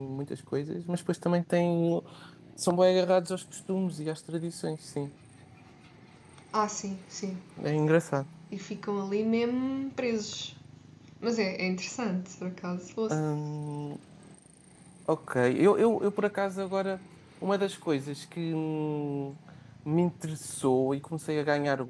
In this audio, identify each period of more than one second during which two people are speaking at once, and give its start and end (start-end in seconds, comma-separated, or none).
none